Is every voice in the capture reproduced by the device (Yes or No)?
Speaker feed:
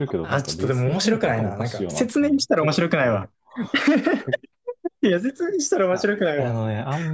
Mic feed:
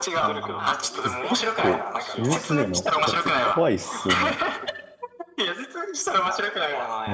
No